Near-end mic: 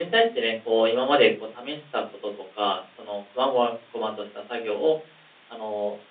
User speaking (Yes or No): Yes